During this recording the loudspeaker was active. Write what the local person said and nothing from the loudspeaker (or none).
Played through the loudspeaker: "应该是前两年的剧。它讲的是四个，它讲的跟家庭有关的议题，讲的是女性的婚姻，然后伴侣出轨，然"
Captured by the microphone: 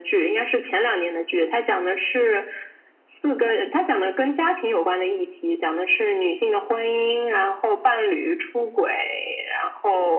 none